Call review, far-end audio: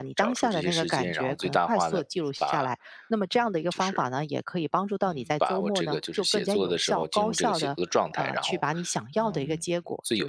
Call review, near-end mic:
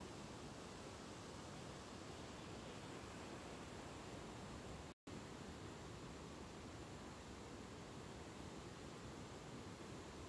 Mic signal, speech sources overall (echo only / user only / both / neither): neither